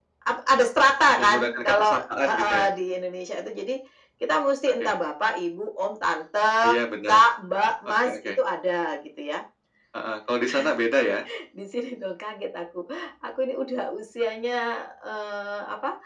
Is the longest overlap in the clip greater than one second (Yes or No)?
Yes